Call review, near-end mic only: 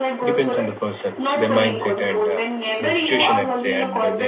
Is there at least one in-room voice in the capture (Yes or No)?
Yes